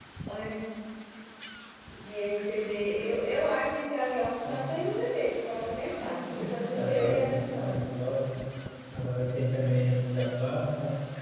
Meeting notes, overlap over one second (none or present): present